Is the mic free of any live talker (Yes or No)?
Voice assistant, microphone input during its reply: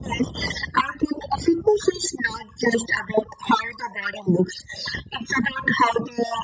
Yes